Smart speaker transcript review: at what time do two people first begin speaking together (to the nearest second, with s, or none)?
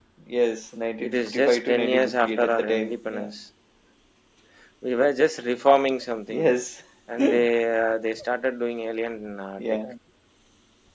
1 s